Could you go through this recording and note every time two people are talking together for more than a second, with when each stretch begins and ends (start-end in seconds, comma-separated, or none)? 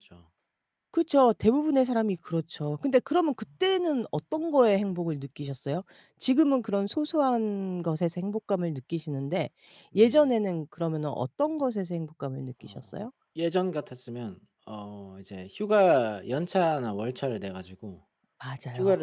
none